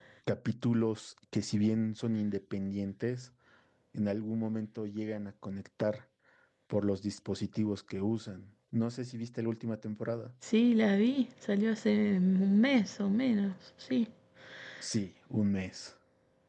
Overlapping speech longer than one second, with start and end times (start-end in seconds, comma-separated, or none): none